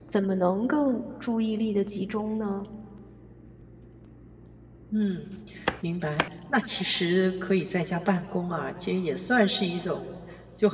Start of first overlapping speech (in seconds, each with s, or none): none